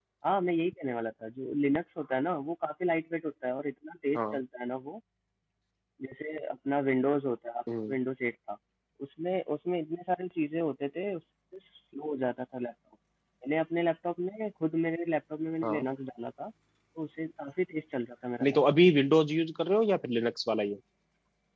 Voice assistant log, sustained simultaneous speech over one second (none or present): none